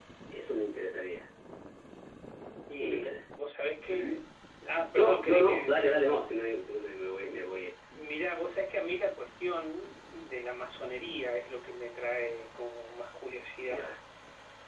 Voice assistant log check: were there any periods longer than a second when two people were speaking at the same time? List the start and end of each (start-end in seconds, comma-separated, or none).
4.9-6.2